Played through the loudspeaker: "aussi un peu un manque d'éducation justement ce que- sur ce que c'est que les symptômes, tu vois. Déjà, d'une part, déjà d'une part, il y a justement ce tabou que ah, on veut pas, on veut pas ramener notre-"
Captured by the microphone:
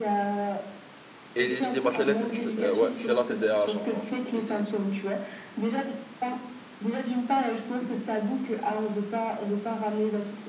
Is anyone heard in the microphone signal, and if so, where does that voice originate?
both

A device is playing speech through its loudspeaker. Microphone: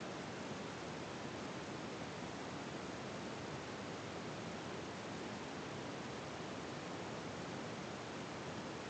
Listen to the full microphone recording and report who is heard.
neither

